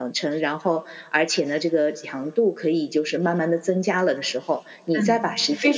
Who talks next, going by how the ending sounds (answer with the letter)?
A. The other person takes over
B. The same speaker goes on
A